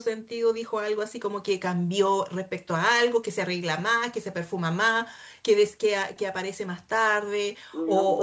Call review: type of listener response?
listening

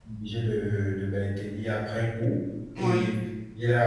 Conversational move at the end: listening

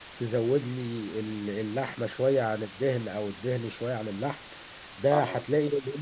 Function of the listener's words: listening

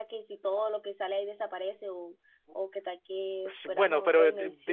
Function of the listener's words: taking over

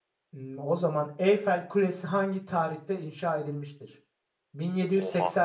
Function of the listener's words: listening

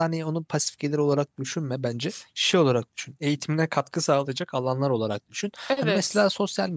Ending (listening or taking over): listening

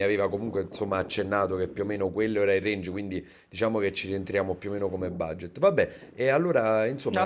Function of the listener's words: taking over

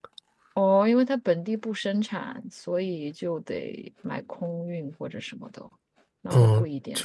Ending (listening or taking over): taking over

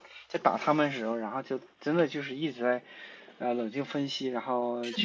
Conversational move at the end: listening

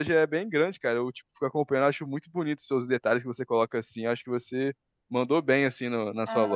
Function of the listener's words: taking over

